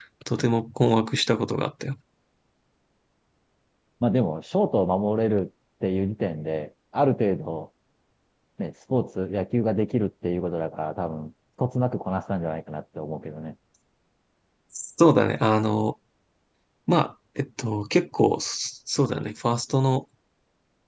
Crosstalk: none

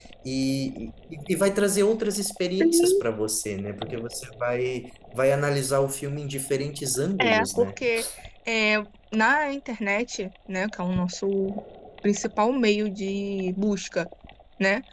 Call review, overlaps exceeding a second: none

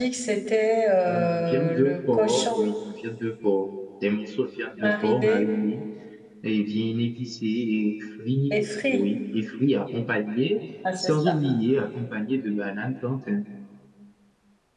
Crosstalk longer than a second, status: present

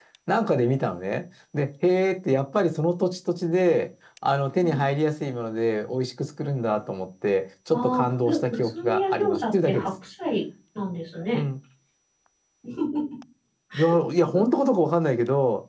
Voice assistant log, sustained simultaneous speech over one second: present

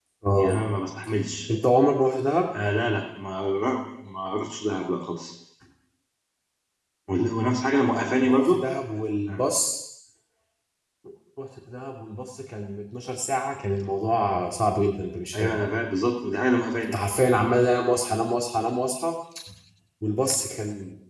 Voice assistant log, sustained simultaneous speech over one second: none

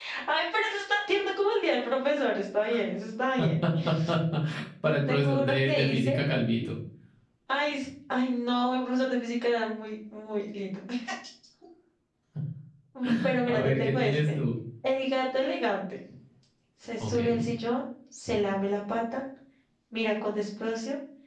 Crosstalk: present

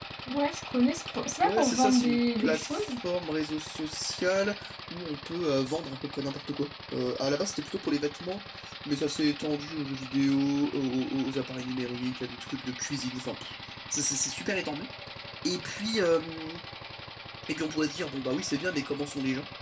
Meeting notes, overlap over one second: present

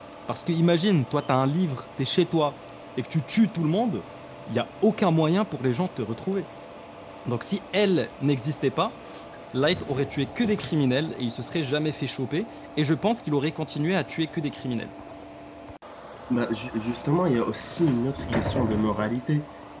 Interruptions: none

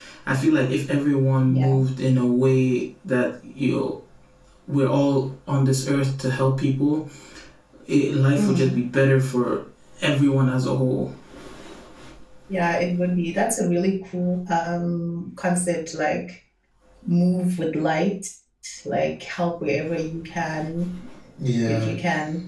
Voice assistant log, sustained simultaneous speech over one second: none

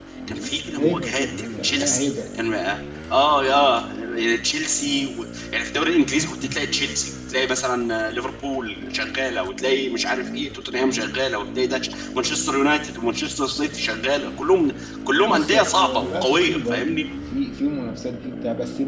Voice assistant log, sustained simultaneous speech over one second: present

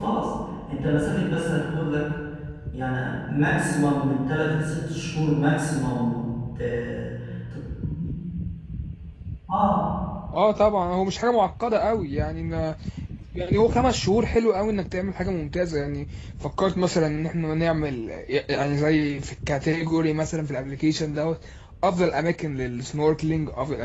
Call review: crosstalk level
none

